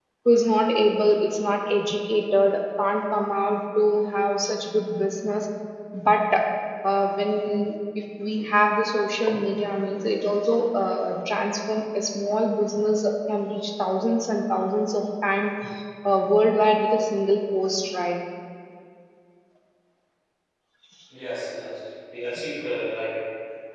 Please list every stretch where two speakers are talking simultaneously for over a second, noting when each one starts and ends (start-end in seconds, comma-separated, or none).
none